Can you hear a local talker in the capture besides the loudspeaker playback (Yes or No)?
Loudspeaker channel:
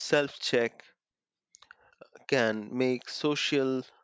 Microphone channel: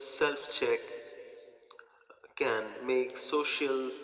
No